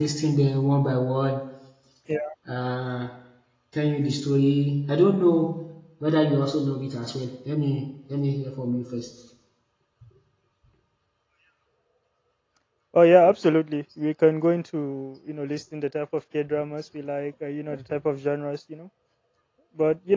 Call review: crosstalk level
none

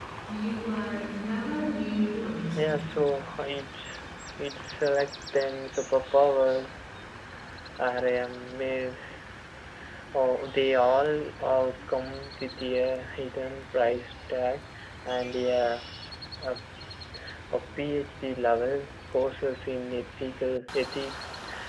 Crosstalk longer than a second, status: none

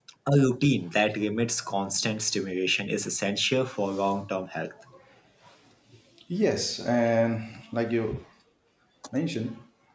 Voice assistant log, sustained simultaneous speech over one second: none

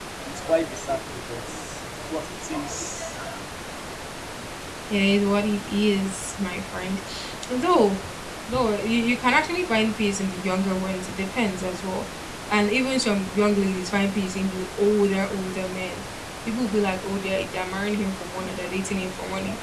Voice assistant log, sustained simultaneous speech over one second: none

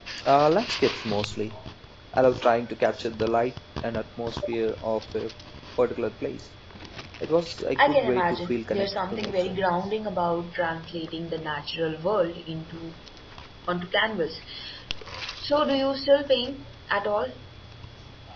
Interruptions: present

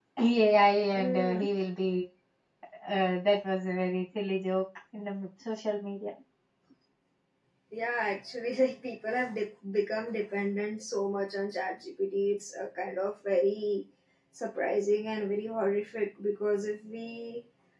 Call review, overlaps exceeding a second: none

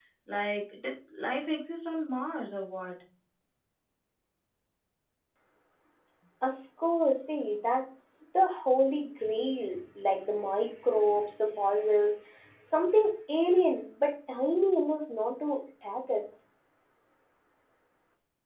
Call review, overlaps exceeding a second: none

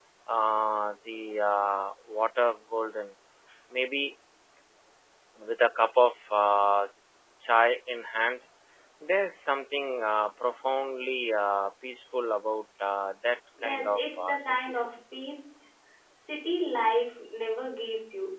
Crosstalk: present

